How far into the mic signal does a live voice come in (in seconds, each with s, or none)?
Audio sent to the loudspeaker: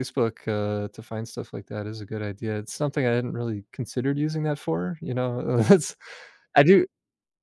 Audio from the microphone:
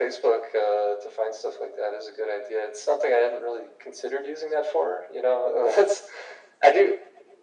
none